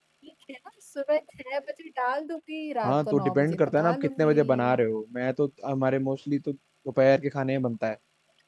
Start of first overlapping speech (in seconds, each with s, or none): 2.8 s